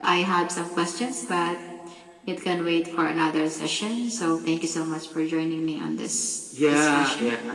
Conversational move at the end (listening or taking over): taking over